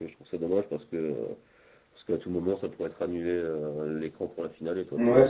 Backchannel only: No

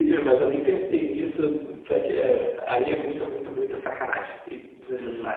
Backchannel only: No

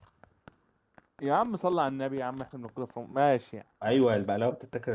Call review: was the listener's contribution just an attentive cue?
No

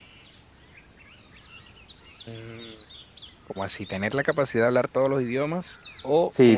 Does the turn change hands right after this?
Yes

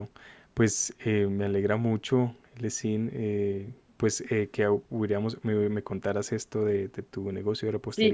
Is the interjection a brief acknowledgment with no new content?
No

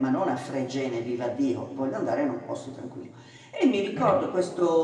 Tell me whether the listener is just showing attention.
Yes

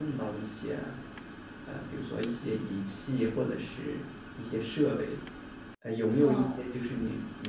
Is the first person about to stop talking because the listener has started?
No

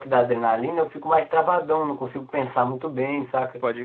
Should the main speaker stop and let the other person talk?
No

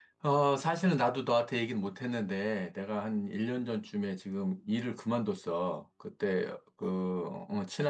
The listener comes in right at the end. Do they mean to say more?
No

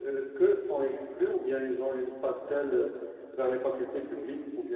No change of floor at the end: No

